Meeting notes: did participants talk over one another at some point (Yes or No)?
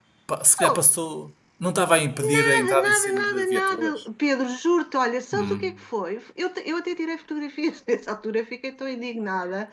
Yes